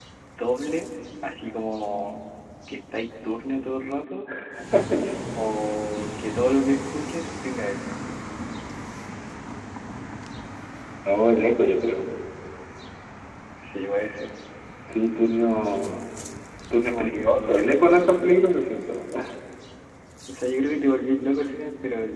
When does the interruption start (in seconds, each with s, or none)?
16.9 s